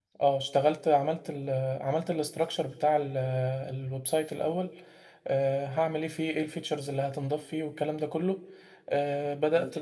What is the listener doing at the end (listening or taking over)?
listening